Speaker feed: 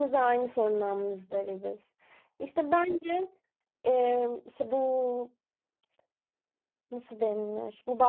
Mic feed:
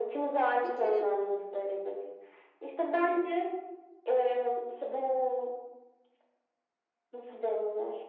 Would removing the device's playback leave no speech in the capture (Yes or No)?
No